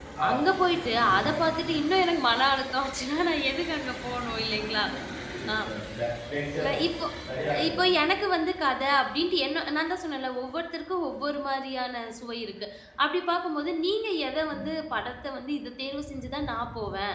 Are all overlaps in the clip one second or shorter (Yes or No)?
Yes